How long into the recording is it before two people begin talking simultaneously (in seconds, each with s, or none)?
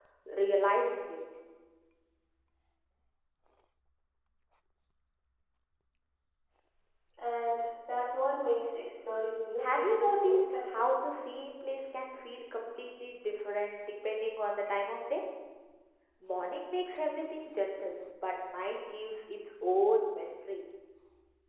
9.6 s